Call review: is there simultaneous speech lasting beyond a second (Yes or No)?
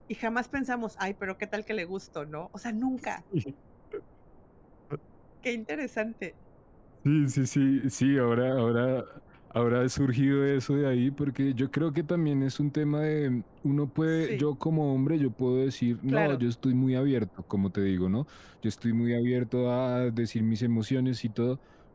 No